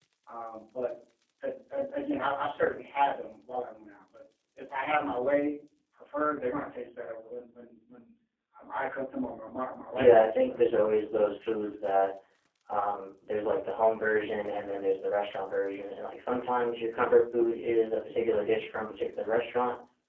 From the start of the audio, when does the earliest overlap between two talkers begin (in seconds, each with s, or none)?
10.0 s